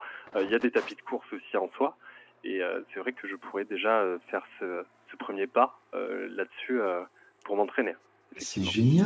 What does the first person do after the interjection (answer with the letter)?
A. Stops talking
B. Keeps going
A